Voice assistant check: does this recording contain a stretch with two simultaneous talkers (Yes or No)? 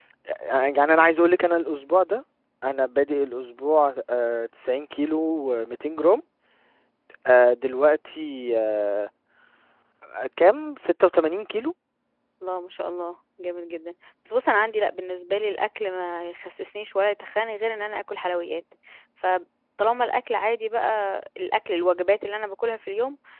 No